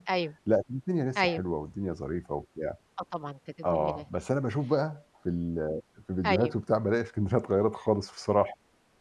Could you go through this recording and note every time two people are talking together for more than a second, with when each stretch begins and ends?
none

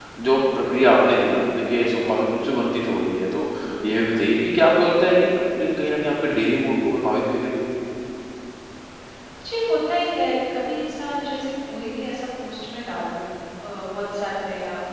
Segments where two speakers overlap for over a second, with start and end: none

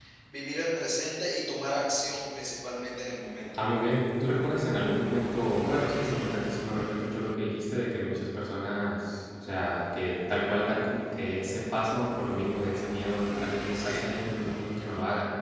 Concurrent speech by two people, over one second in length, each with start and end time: none

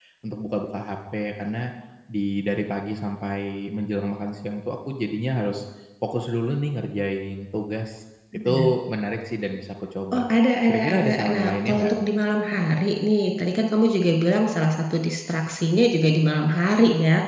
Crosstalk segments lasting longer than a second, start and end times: 10.7-11.9

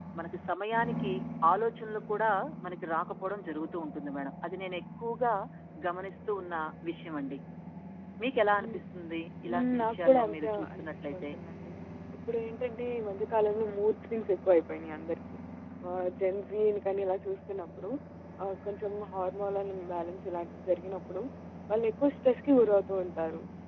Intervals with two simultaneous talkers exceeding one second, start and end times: 9.5-11.3

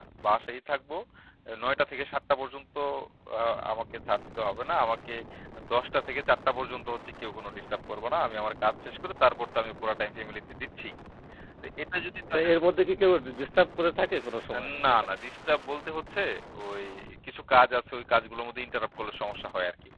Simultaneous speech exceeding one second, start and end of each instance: none

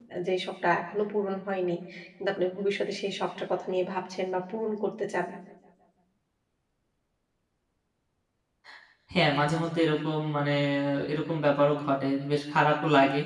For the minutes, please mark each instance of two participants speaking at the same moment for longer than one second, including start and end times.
none

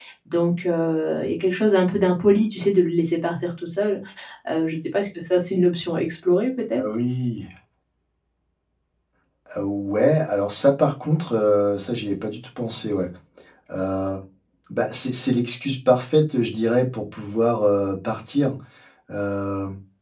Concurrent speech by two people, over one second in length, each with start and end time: none

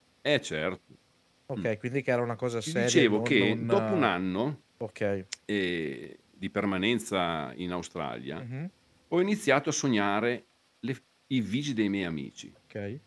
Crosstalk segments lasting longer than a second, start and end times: 2.7-4.1

